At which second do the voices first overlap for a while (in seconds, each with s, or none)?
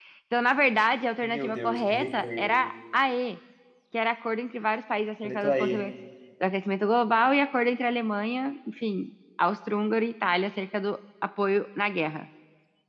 1.2 s